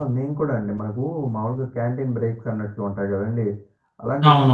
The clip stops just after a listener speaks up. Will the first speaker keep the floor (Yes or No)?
Yes